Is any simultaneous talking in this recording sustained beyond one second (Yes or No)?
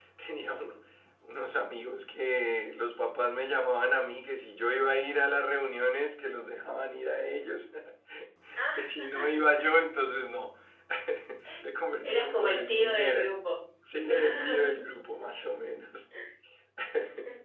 Yes